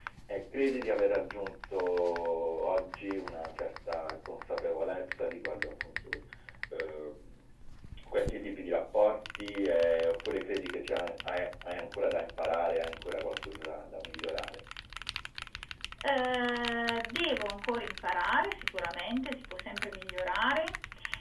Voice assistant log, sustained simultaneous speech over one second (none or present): none